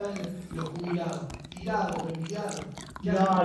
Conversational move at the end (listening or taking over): taking over